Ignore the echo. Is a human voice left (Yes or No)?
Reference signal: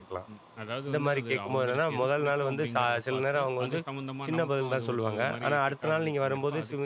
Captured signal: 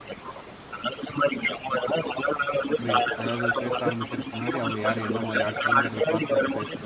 Yes